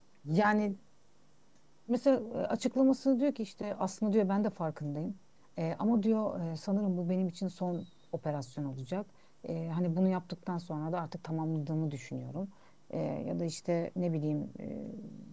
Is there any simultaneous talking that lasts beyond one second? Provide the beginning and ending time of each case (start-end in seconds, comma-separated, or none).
none